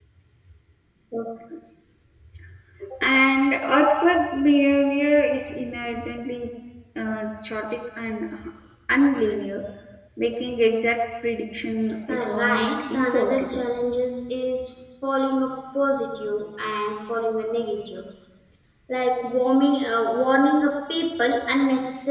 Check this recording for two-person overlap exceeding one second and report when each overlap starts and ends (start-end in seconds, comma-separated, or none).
12.1-13.4